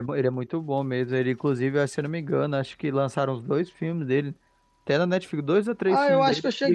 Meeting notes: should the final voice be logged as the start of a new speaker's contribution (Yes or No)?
Yes